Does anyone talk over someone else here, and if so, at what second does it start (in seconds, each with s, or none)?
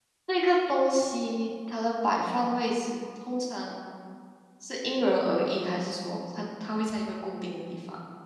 none